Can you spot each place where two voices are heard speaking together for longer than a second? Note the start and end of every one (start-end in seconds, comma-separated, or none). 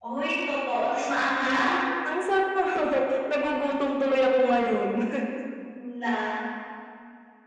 none